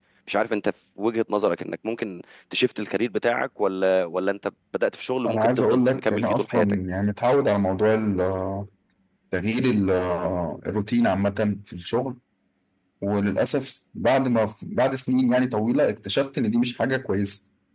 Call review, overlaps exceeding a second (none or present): present